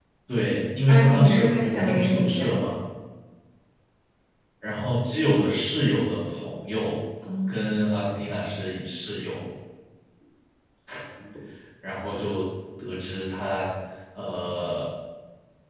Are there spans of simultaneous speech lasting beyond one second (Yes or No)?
Yes